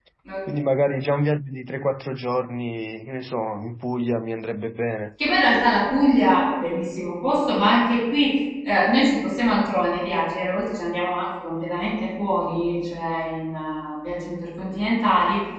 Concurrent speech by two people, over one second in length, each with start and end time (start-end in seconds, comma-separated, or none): none